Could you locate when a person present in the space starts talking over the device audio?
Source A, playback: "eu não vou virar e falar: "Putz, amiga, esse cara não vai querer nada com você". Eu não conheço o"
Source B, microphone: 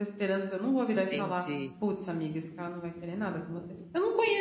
0.9 s

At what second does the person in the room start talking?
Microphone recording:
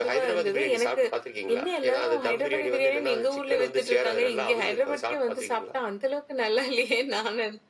none

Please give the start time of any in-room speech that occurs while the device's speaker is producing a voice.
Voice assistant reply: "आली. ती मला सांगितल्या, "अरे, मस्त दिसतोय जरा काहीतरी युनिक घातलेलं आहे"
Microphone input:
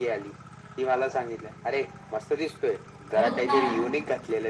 3.2 s

